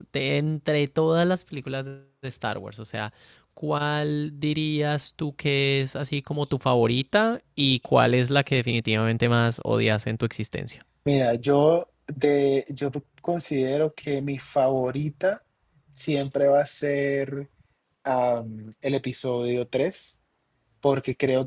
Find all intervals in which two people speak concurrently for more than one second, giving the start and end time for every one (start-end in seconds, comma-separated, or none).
none